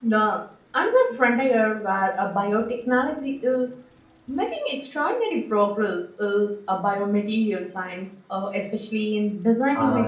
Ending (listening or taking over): taking over